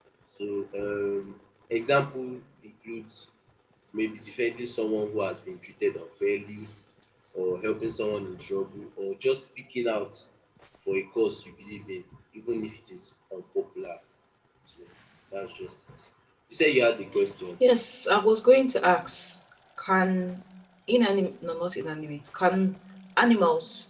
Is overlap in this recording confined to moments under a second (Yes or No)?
Yes